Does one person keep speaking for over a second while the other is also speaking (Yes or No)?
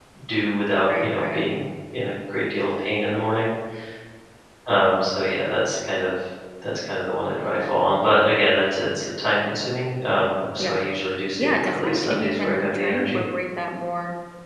Yes